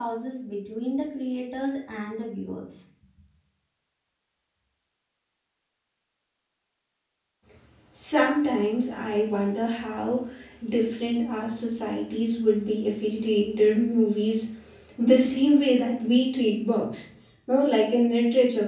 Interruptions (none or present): none